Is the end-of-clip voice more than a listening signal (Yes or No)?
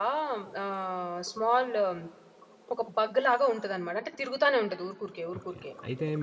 Yes